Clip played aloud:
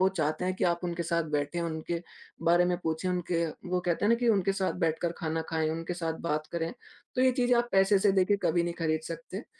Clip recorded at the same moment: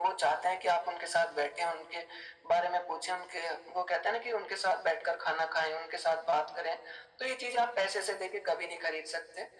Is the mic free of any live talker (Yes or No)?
Yes